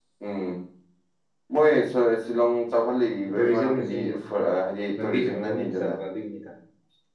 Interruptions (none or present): present